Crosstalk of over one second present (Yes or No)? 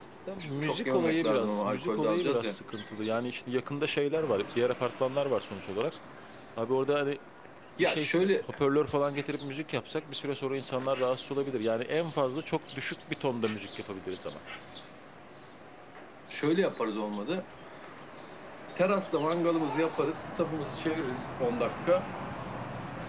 Yes